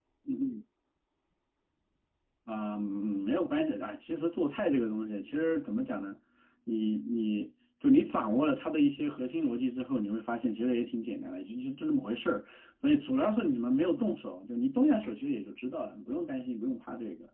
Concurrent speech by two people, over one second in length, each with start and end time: none

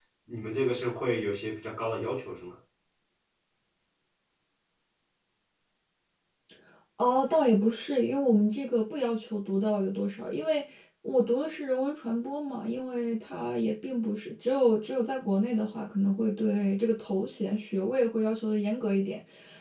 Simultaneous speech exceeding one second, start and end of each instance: none

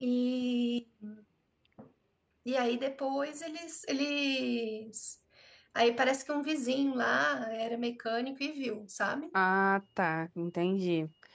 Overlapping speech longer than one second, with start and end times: none

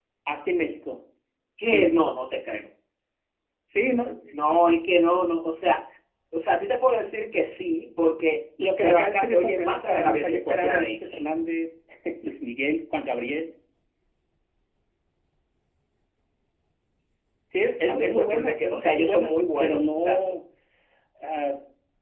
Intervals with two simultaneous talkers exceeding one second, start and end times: 8.8-11.2, 17.9-20.4

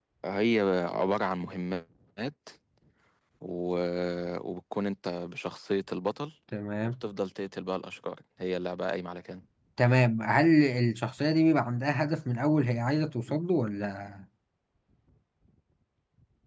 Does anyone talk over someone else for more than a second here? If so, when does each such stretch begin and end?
none

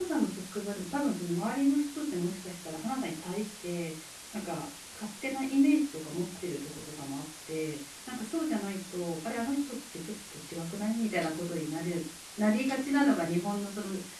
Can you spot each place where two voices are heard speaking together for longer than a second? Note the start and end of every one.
none

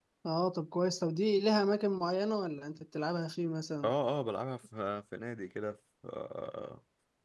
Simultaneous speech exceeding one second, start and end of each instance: none

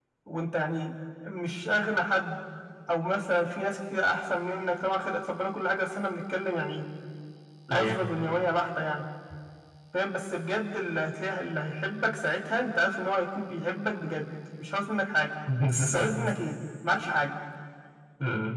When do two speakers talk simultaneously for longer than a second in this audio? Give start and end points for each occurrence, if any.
none

